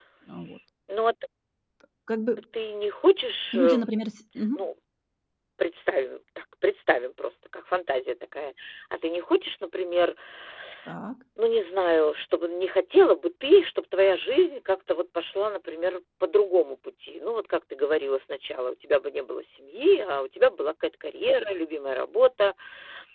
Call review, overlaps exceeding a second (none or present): none